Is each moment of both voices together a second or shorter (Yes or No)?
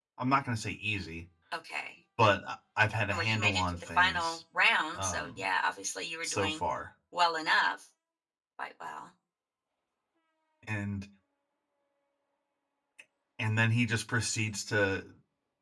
No